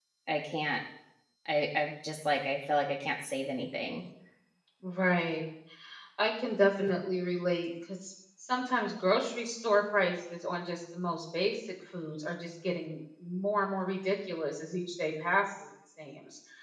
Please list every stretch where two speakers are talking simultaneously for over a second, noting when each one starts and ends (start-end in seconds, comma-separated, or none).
none